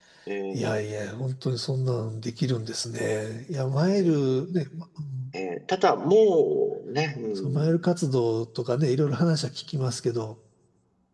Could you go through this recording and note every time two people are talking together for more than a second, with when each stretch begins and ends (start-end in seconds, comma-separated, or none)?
none